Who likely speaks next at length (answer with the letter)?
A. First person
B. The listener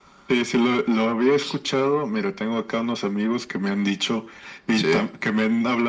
A